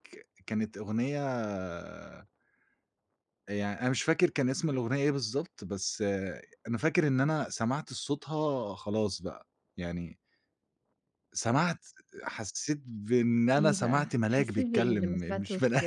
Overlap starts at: 13.6 s

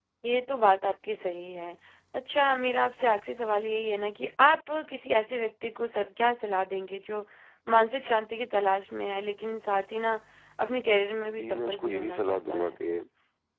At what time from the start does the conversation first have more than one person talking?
11.3 s

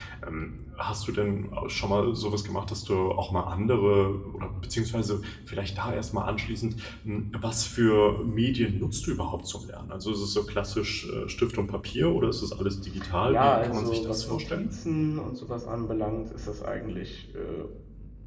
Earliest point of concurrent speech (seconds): 13.2 s

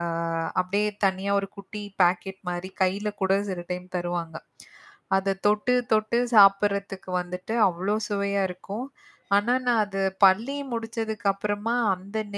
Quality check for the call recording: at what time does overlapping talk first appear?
none

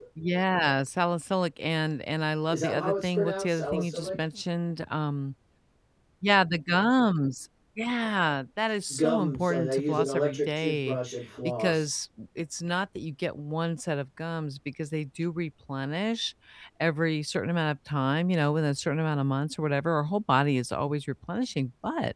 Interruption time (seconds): 2.5 s

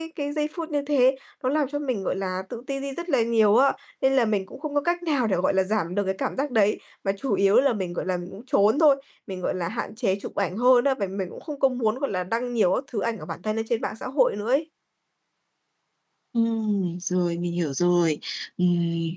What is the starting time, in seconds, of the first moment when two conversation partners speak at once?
none

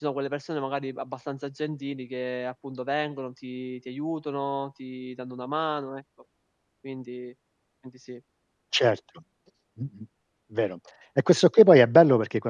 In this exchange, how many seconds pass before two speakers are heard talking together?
none

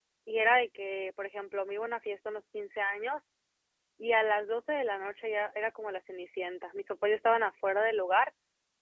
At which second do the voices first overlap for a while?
none

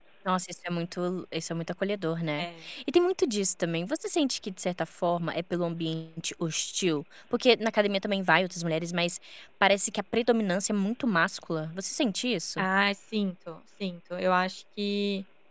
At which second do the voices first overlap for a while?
none

